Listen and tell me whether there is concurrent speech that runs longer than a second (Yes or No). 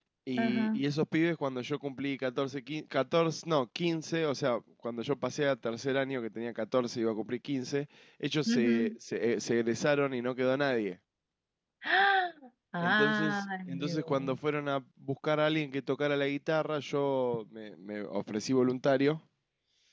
Yes